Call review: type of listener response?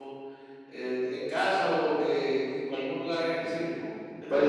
taking over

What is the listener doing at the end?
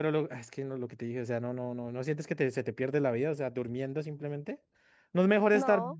listening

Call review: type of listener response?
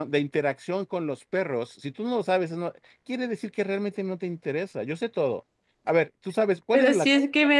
taking over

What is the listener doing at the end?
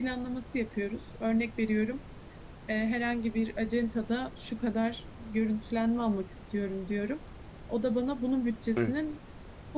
listening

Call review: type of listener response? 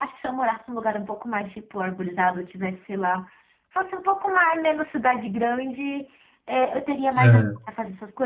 listening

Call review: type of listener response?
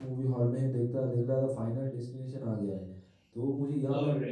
listening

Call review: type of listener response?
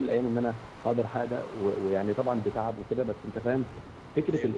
listening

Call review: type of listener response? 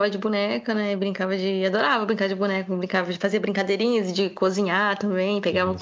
listening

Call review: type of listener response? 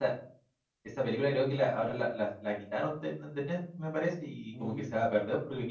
listening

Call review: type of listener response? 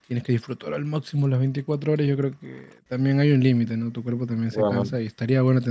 listening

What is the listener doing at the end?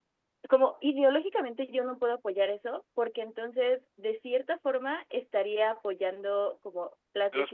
listening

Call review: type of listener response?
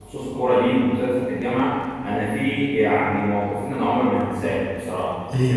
listening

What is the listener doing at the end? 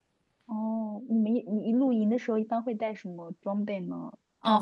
taking over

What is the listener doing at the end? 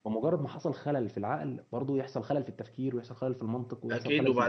taking over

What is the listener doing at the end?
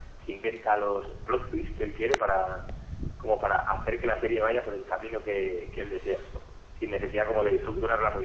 listening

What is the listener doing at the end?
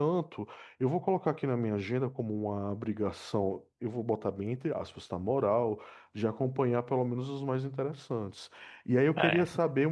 listening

